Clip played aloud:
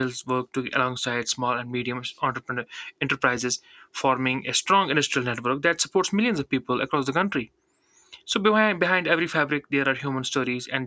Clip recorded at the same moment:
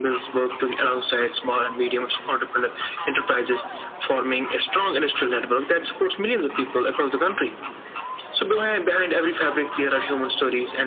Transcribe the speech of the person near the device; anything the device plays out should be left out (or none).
none